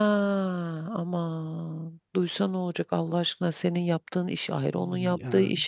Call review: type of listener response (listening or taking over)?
listening